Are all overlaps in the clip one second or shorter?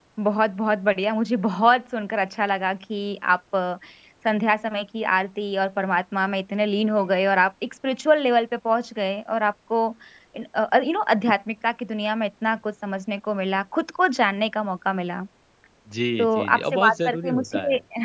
No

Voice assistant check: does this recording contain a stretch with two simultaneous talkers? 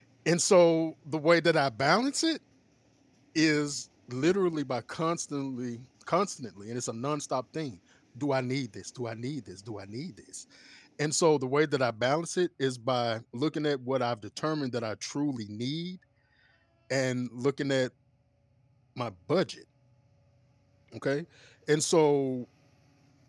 No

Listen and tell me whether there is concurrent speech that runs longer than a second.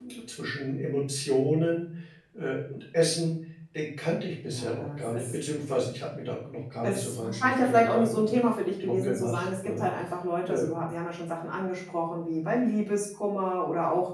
Yes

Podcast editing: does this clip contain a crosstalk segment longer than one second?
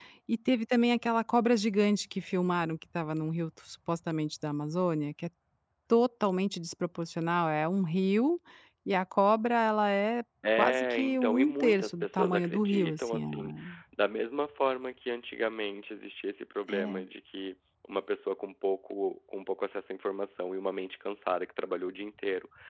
Yes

